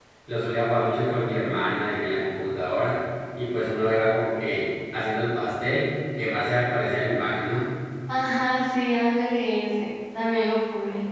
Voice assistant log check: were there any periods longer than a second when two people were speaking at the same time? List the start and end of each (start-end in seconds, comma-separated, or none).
none